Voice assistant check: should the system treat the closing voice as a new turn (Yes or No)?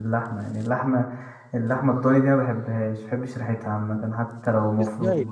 Yes